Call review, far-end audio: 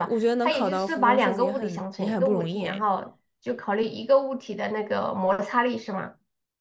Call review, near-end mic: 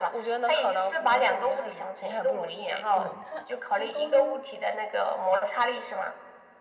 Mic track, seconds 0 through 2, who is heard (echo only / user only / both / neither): echo only